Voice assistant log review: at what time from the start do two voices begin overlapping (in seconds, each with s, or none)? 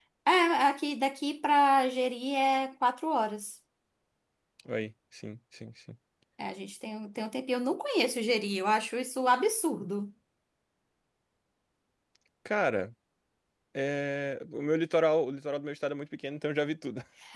none